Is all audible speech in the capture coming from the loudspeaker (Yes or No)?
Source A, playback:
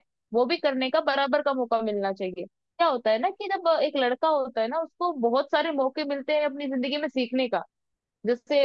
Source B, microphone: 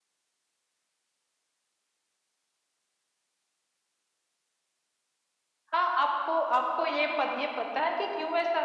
No